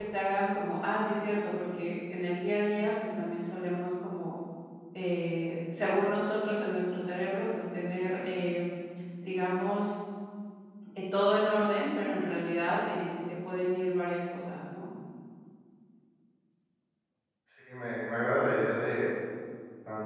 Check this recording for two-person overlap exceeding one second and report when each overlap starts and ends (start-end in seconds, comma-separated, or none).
none